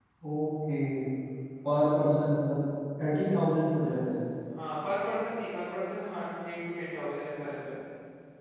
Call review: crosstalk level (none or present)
none